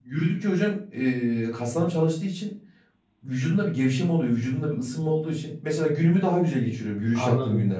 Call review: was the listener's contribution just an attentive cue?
No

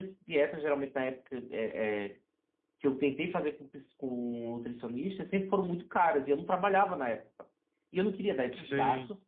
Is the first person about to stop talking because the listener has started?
No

